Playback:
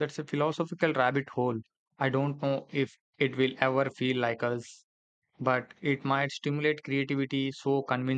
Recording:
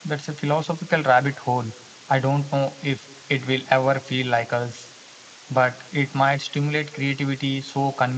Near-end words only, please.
none

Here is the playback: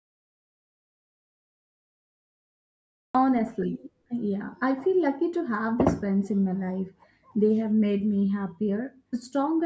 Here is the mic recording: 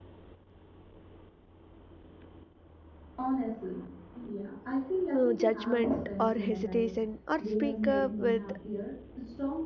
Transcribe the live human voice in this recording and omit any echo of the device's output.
uh, judgment or hesitation, or speak up with

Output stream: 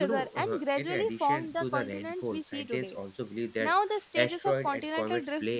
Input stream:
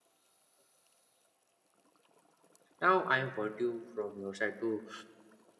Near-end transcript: now i want you from your side to

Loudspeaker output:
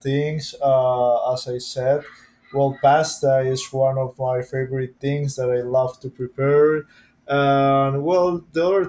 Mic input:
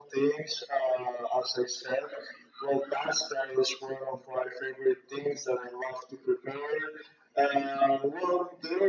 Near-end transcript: none

